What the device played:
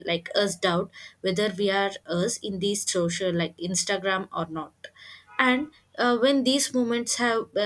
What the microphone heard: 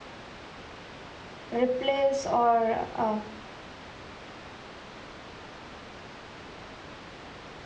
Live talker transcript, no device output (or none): replace or uh,